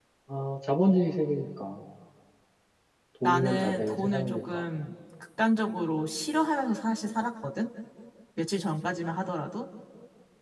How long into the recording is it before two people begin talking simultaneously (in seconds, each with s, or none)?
3.2 s